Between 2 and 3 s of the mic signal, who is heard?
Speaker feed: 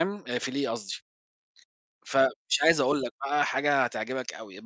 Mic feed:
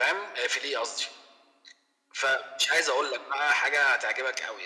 echo only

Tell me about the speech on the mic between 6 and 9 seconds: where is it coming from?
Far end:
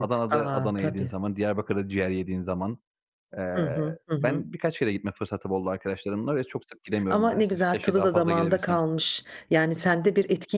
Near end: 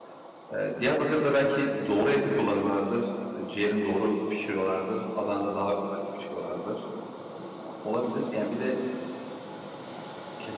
user only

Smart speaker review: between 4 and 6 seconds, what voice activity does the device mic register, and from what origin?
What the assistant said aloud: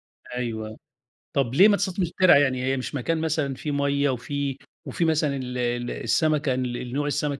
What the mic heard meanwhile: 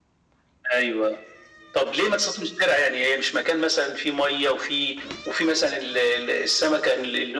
echo only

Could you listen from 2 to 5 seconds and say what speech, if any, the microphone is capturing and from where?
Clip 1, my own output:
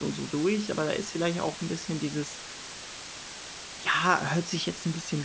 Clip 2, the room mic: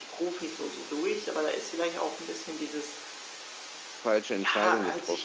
both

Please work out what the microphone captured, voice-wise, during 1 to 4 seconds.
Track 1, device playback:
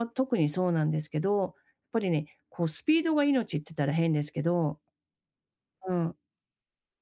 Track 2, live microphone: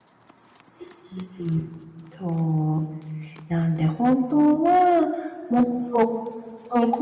user only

